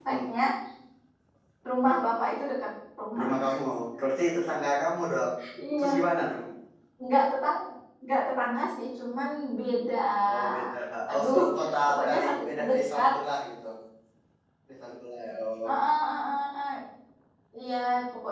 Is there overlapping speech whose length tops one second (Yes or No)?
Yes